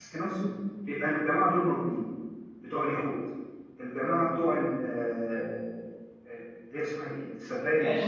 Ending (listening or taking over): taking over